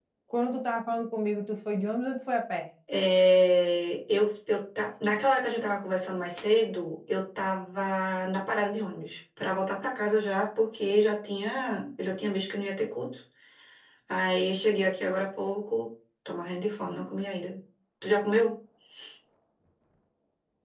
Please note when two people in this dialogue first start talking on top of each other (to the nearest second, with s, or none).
none